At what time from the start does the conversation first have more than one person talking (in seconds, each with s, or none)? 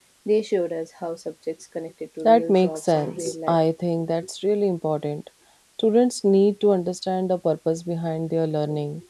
2.2 s